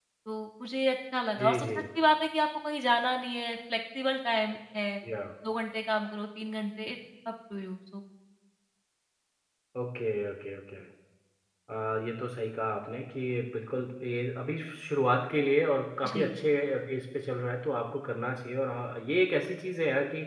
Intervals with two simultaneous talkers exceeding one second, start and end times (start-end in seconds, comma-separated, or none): none